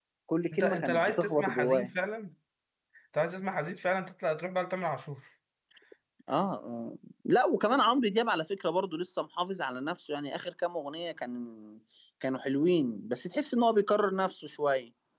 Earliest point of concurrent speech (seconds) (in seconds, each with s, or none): 0.5 s